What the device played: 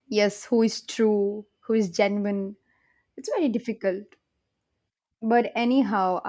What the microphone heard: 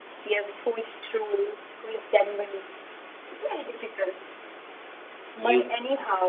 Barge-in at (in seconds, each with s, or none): 5.3 s